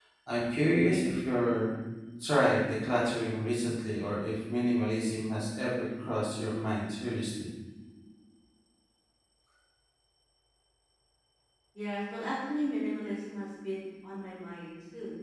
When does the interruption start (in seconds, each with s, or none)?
none